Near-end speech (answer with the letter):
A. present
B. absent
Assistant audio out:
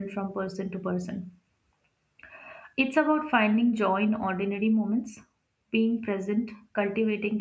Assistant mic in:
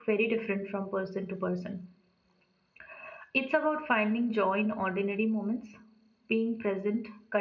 B